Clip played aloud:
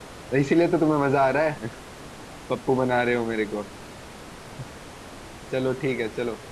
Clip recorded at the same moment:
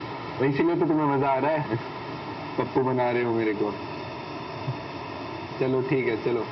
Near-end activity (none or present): none